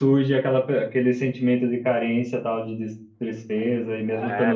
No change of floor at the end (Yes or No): No